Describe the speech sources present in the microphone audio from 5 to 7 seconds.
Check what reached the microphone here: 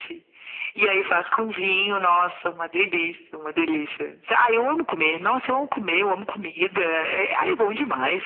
echo only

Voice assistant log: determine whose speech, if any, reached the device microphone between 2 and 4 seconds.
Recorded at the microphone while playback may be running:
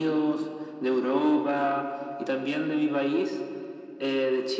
echo only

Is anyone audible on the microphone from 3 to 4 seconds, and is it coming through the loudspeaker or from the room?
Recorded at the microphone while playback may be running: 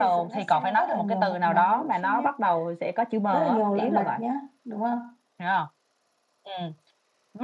echo only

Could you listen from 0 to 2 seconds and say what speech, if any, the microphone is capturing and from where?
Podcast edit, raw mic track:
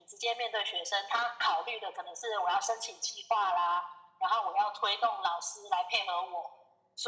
echo only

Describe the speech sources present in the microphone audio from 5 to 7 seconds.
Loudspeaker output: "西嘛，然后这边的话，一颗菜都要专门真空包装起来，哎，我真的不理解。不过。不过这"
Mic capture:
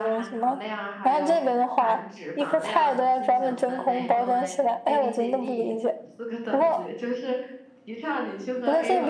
both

